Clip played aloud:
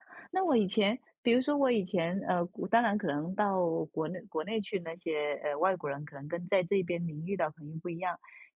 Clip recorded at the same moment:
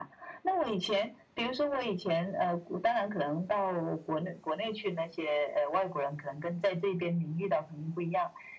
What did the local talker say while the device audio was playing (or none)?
none